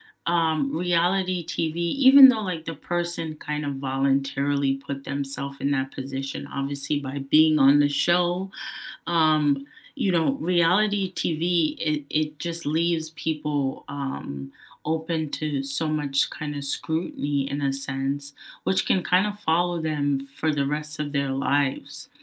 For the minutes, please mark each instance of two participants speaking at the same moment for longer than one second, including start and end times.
none

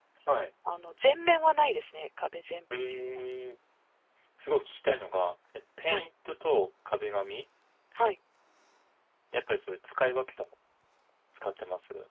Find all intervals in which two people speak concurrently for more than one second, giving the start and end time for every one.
none

